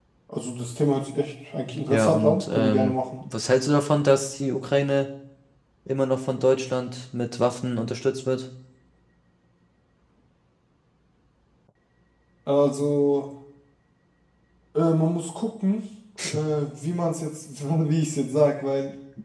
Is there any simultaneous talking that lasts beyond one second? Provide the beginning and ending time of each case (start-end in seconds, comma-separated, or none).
1.9-3.3